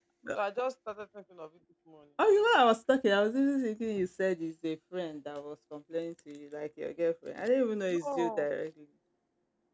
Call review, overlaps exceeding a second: none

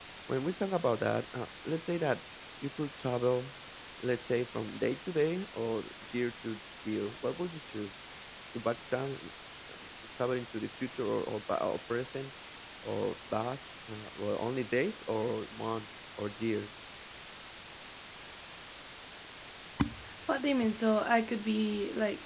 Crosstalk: none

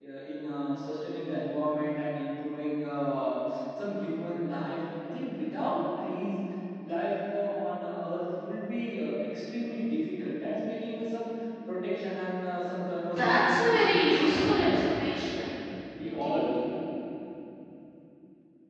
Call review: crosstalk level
present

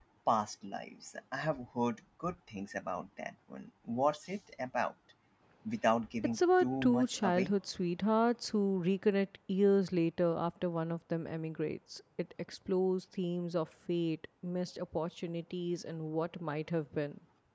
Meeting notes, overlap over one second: present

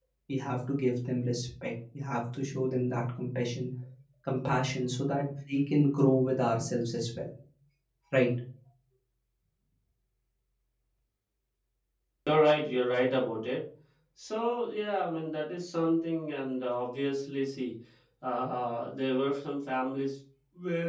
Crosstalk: none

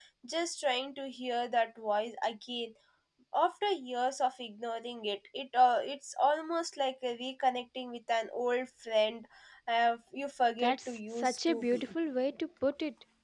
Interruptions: present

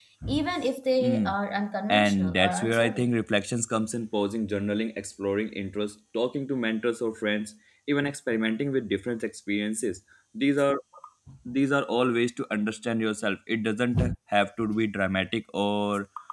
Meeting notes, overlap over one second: present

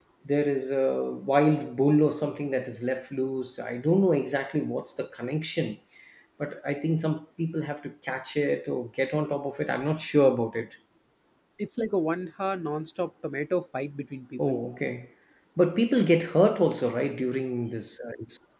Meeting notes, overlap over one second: none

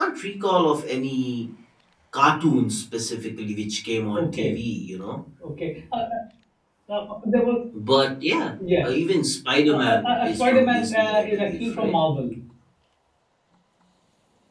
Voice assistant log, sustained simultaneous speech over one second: present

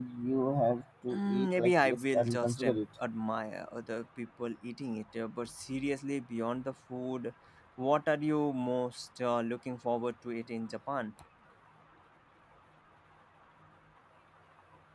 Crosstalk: present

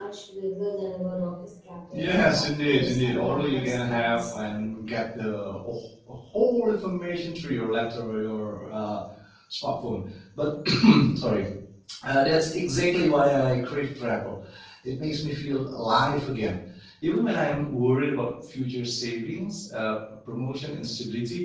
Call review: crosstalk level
present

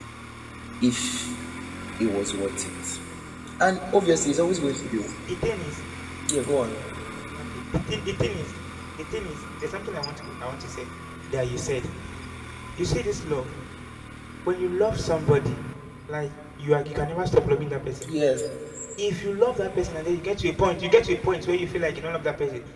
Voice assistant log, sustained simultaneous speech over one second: none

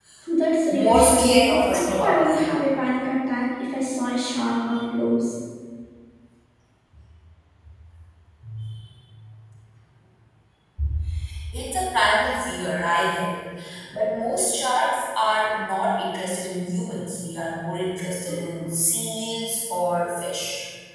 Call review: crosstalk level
present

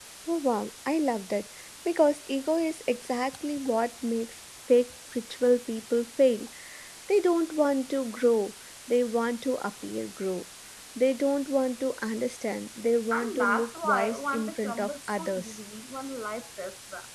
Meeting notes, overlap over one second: present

